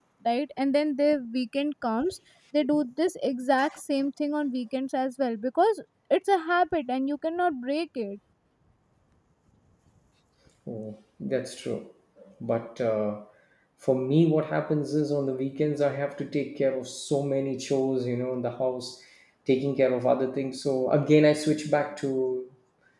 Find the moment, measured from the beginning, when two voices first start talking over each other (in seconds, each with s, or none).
none